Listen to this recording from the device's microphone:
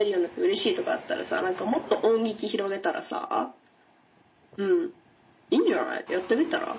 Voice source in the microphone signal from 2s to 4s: echo only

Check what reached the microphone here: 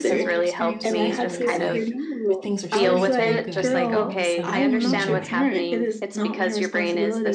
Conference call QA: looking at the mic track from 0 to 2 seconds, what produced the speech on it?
both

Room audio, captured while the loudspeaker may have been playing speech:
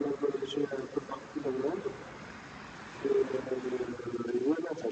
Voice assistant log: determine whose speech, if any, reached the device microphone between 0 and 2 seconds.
echo only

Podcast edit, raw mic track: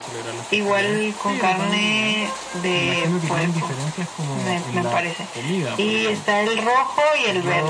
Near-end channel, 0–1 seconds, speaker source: echo only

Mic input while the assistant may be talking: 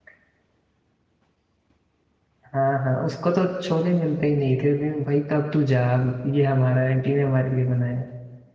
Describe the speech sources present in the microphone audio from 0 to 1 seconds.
neither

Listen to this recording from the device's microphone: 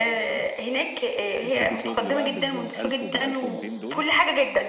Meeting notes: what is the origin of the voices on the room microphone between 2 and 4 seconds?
both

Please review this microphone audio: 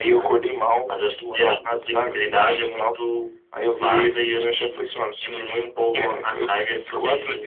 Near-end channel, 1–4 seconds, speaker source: echo only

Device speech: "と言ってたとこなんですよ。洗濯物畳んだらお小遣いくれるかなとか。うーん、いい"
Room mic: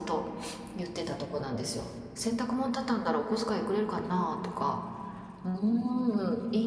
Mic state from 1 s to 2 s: echo only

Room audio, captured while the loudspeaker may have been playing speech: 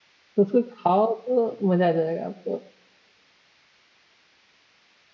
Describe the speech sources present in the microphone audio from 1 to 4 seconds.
user only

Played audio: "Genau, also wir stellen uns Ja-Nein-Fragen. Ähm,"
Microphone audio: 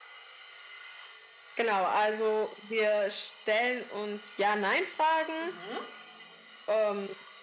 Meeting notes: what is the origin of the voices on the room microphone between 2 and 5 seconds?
echo only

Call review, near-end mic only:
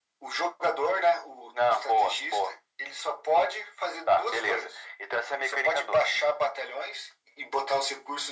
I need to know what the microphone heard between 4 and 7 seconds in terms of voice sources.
echo only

